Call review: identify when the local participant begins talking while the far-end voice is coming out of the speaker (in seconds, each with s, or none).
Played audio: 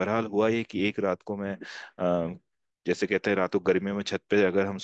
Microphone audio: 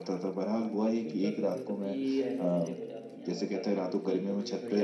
0.5 s